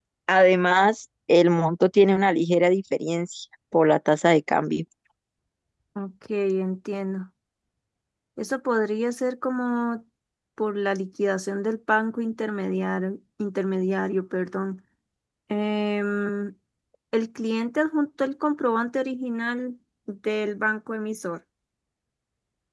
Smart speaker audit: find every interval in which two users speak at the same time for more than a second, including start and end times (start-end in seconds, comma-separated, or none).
none